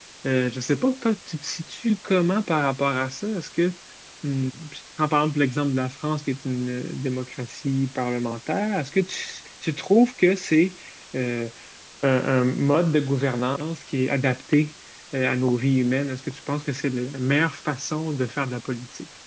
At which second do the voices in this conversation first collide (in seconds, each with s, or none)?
none